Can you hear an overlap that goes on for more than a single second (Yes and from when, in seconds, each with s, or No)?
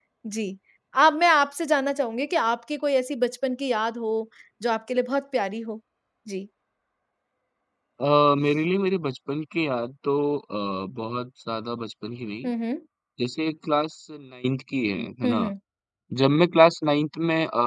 No